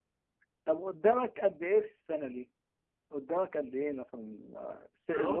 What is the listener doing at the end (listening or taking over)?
taking over